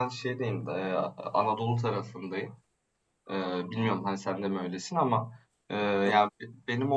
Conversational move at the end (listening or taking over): listening